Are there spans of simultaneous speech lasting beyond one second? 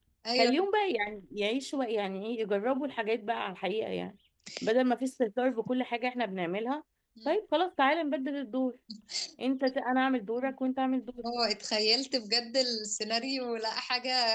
No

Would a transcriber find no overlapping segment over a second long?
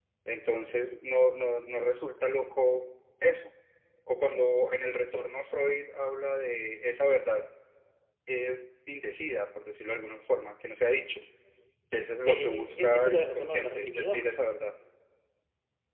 No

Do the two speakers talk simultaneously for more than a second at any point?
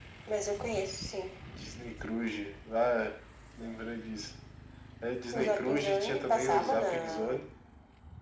Yes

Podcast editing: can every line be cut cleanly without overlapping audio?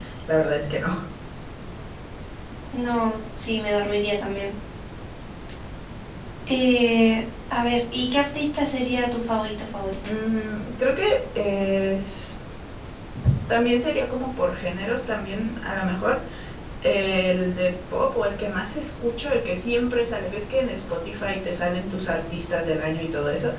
Yes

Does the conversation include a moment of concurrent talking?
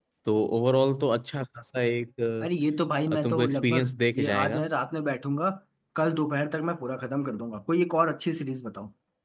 Yes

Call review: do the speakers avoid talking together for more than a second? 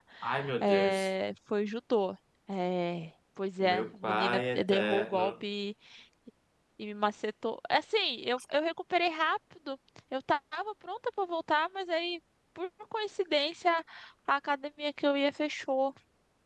No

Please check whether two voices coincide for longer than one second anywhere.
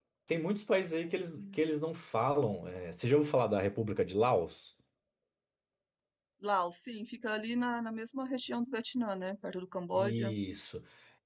No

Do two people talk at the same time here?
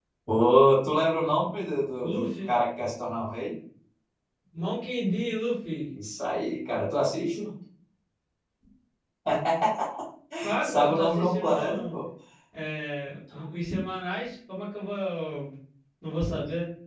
Yes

